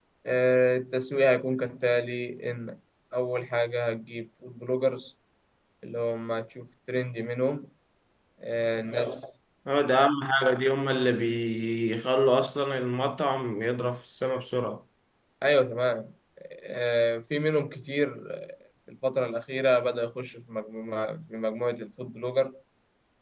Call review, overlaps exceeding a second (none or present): none